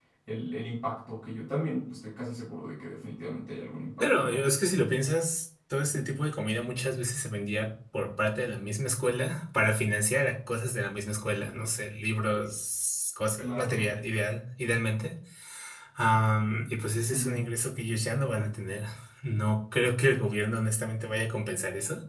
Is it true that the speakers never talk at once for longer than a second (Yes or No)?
Yes